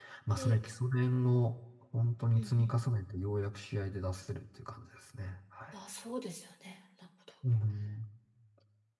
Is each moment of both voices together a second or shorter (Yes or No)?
Yes